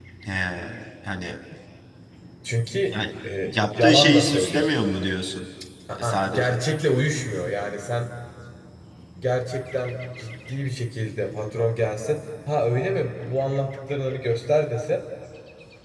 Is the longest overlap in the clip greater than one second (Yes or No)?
Yes